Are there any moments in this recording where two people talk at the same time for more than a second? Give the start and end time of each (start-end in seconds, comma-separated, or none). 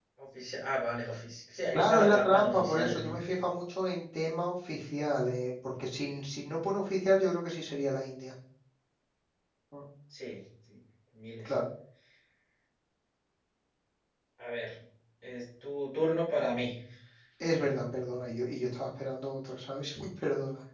1.7-3.2